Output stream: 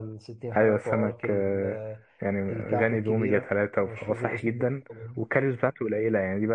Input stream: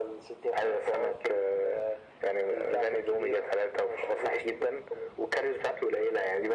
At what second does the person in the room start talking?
none

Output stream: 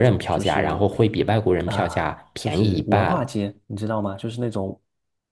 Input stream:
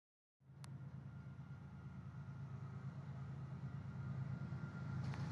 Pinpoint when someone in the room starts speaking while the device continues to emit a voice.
none

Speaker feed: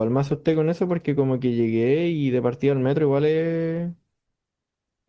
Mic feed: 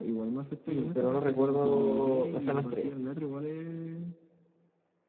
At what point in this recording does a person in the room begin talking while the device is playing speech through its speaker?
1 s

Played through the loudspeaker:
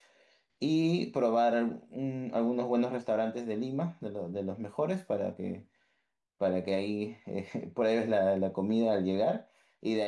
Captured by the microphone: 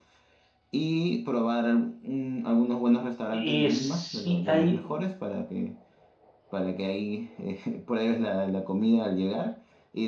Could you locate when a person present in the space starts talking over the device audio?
3 s

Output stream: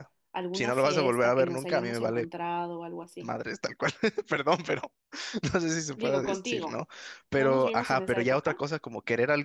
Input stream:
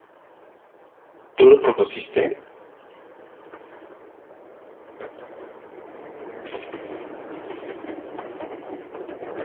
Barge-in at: 1 s

